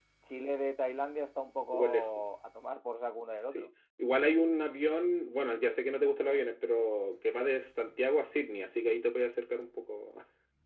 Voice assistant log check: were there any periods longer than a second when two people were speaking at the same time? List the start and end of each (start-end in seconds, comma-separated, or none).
none